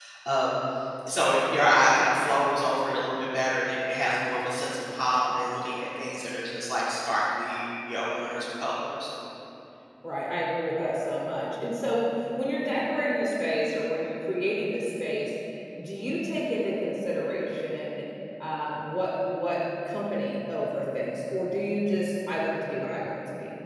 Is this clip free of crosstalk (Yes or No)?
Yes